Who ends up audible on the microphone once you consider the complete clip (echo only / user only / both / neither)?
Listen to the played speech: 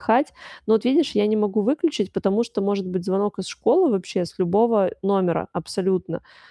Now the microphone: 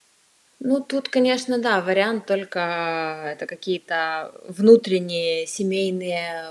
user only